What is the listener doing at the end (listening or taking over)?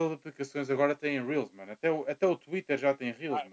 taking over